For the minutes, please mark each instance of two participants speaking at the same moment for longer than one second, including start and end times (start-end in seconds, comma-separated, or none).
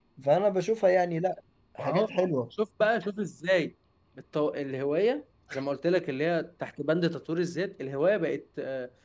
none